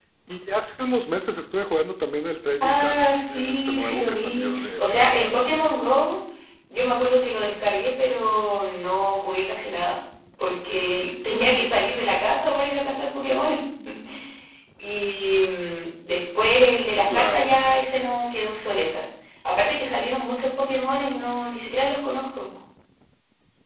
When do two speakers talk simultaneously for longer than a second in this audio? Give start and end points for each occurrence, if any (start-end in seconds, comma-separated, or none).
2.6-5.5